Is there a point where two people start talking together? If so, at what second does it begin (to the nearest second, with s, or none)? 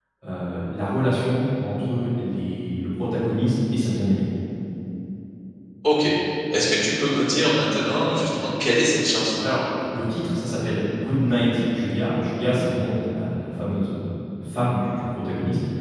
none